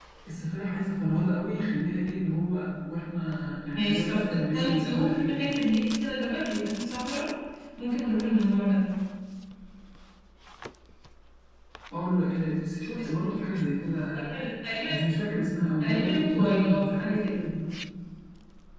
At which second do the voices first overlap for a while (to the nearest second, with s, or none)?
4 s